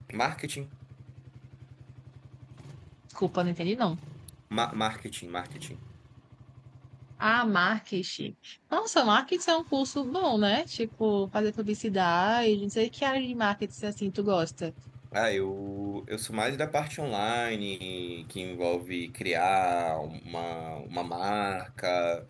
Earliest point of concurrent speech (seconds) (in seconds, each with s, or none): none